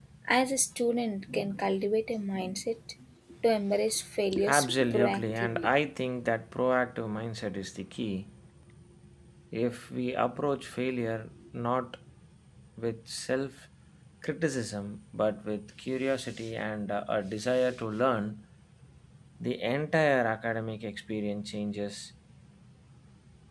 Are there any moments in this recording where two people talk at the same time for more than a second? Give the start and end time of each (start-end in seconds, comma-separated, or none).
4.4-5.7